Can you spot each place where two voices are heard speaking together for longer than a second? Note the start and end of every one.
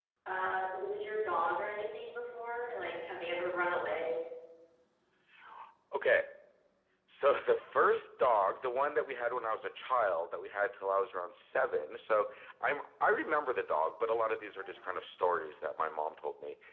none

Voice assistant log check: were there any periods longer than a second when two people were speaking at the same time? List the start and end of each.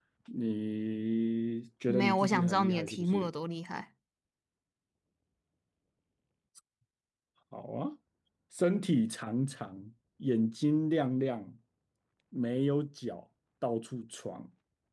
1.9-3.3

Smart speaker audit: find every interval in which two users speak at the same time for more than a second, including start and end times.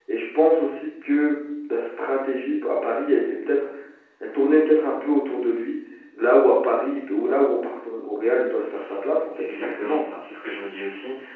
8.7-10.0

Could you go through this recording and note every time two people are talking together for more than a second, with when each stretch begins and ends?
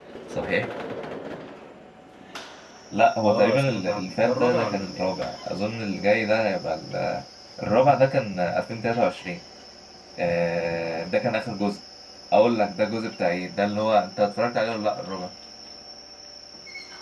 3.2-5.2

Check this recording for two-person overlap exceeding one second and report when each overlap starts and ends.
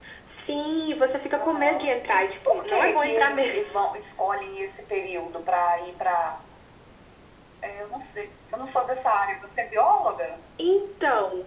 1.3-3.8

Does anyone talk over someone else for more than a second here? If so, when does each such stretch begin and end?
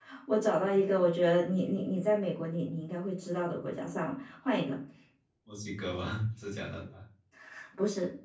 none

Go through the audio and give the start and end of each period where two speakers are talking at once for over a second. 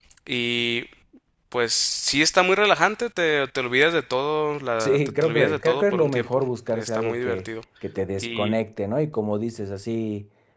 4.8-7.5

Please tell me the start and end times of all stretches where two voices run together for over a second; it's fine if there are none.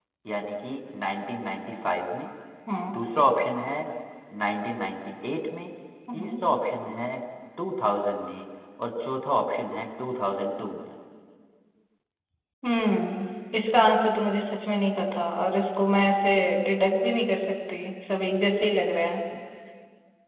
none

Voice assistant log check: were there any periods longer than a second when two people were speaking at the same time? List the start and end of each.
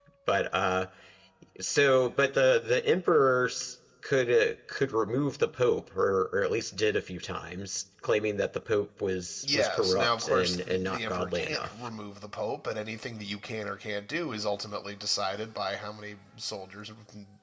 9.4-11.7

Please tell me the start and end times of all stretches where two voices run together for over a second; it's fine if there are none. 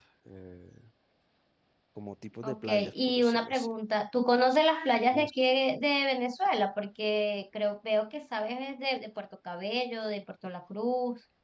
2.4-3.7

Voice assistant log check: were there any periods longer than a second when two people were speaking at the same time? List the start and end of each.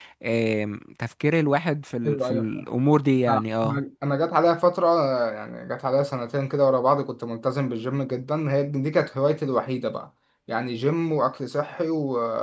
none

